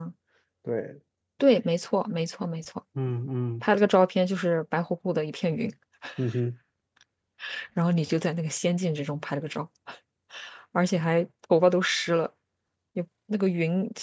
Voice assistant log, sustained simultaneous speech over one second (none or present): none